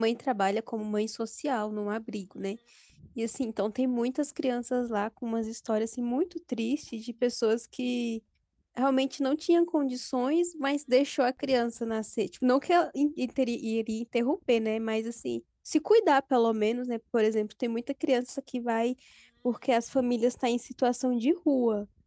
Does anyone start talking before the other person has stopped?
No

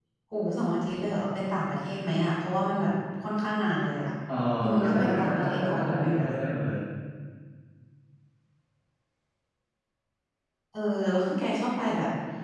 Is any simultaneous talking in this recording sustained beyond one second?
Yes, from 4.8 s

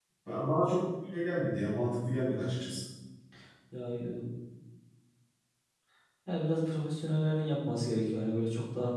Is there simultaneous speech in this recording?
No

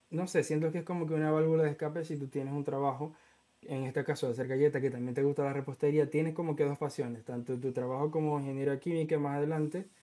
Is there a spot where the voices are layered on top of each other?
No

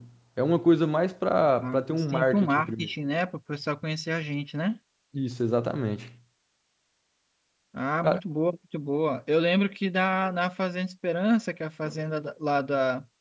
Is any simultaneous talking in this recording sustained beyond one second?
Yes, from 1.6 s

